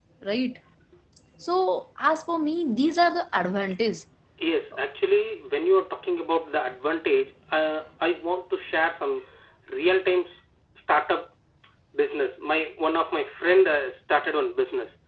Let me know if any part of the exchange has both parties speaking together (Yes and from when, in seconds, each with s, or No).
No